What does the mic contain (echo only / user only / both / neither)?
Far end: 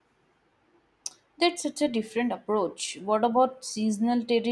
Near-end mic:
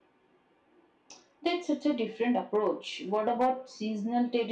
echo only